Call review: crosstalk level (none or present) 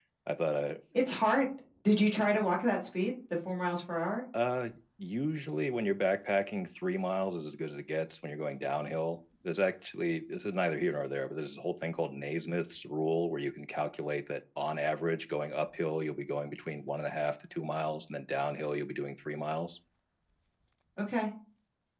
none